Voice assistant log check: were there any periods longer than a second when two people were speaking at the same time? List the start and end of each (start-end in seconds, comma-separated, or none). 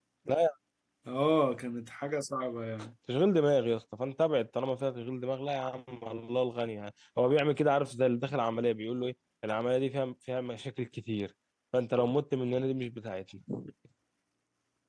none